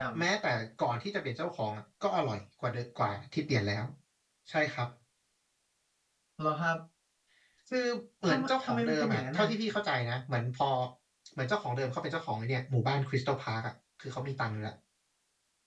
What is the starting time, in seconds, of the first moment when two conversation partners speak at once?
8.2 s

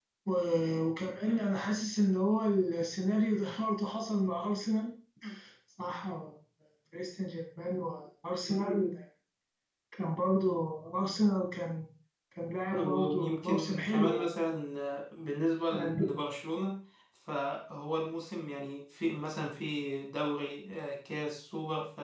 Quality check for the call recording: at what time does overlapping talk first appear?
12.7 s

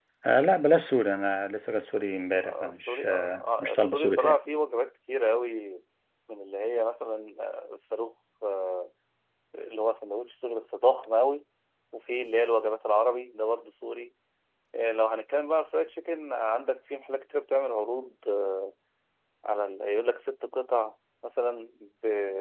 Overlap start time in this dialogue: 2.4 s

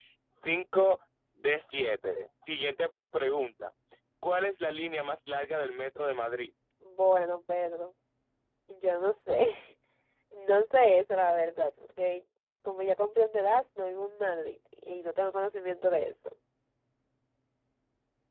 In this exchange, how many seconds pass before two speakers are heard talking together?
none

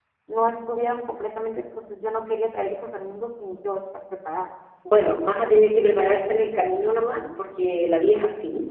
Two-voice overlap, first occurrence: none

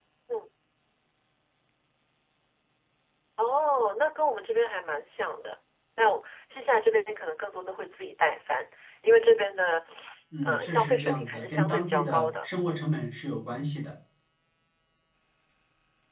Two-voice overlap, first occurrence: 10.4 s

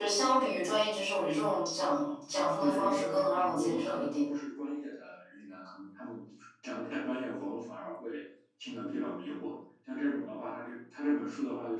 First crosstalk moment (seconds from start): 2.6 s

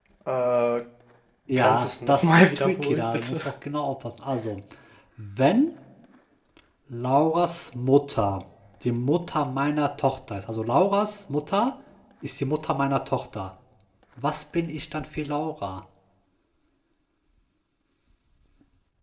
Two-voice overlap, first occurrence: 1.6 s

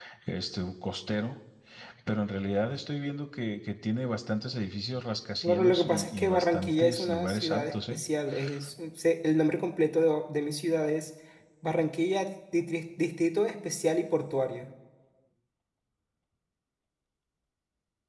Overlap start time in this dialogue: 5.4 s

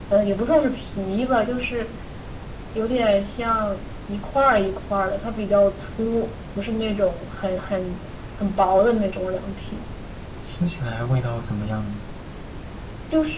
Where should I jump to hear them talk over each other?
none

